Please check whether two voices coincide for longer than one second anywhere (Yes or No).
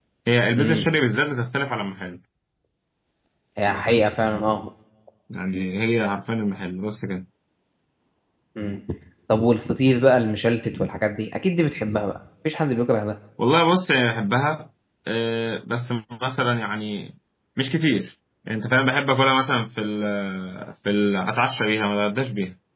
No